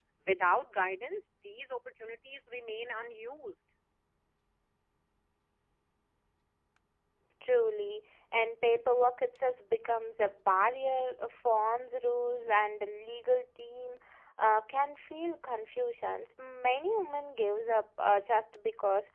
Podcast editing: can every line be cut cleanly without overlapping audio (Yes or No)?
Yes